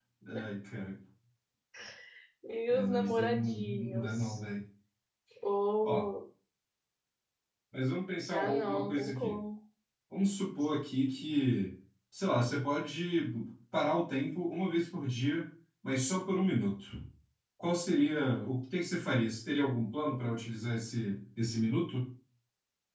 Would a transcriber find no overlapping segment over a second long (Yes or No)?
No